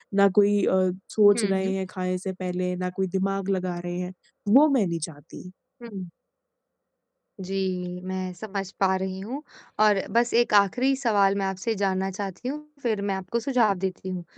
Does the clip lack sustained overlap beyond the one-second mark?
Yes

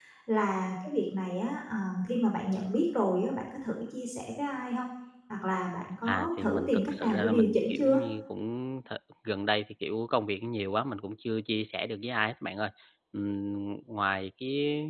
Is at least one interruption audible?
Yes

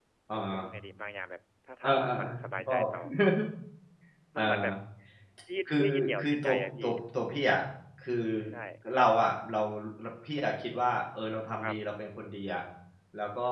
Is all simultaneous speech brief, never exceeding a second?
No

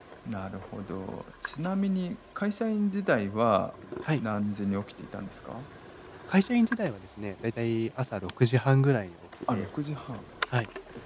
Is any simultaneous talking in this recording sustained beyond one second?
No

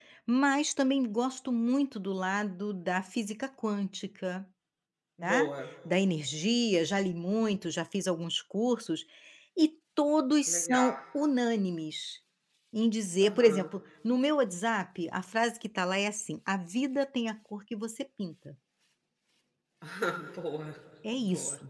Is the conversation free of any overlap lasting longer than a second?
Yes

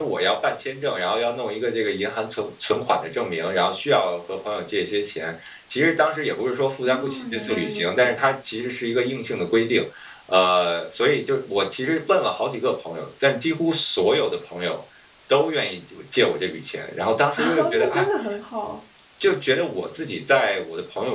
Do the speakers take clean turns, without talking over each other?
No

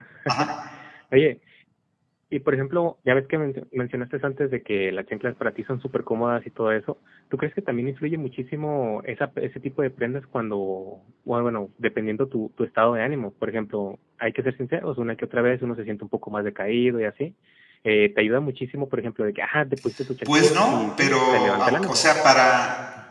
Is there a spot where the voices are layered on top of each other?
Yes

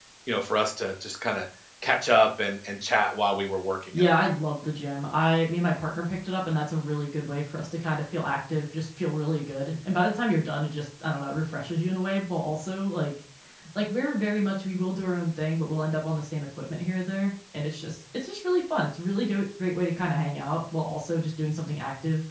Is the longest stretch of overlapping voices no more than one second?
Yes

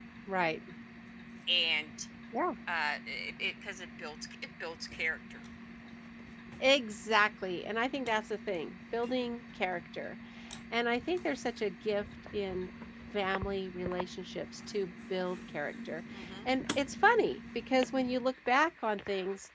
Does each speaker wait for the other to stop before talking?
Yes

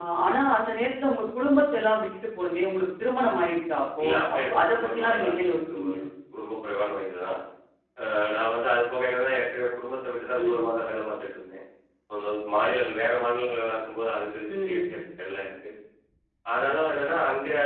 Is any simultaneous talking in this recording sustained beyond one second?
Yes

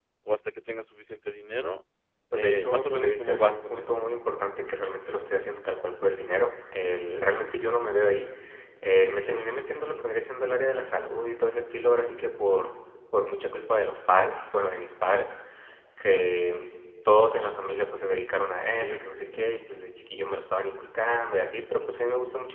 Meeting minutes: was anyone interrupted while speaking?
Yes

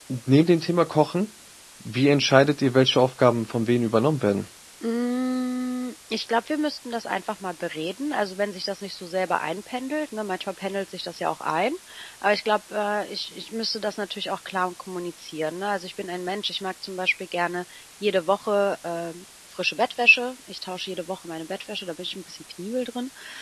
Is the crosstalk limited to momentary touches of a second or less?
Yes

